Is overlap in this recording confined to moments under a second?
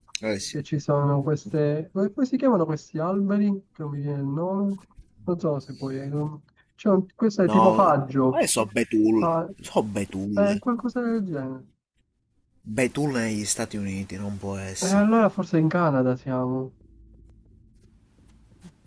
Yes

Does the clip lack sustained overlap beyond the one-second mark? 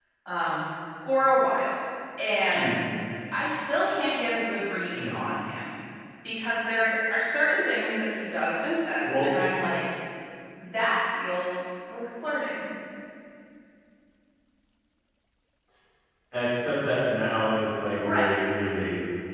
Yes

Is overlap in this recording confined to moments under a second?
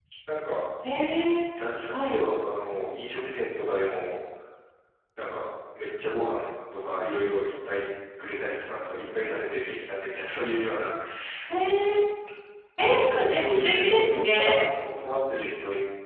No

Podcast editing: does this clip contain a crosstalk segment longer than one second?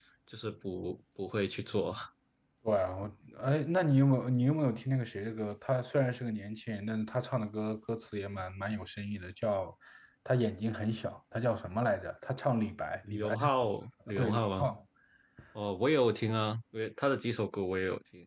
No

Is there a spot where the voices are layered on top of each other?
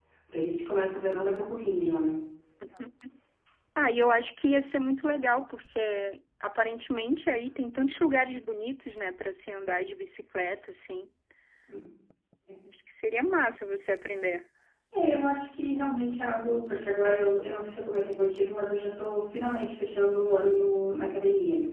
No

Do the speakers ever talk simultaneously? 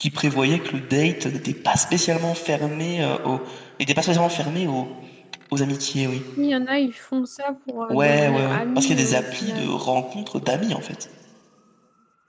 Yes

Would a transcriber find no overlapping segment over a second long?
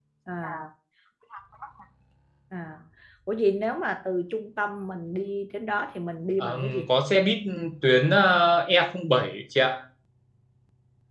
Yes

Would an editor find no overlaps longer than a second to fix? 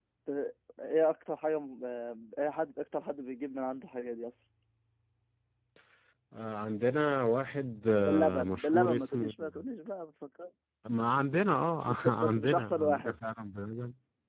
No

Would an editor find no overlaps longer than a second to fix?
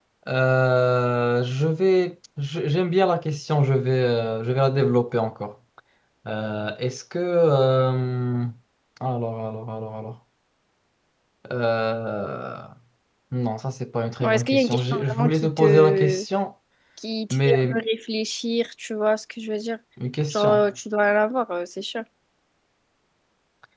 No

